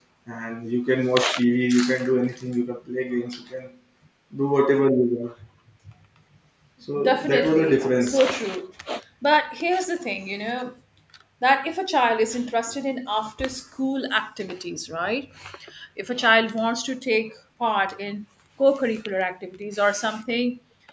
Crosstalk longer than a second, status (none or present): present